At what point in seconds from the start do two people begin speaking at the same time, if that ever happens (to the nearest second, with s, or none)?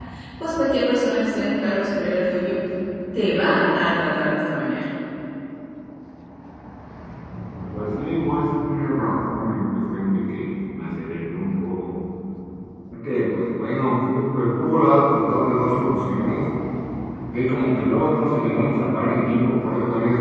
none